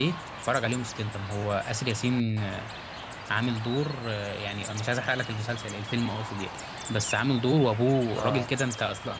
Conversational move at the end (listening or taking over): listening